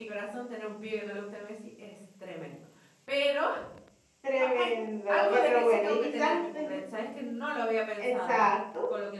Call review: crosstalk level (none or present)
present